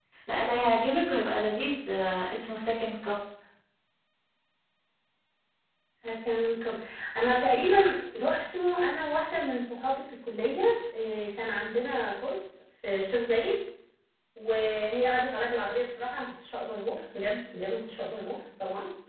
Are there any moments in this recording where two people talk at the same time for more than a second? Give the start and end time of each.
none

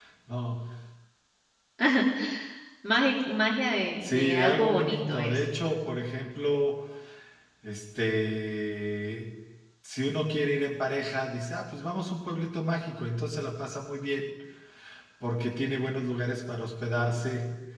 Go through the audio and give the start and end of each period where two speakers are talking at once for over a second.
4.0-5.4

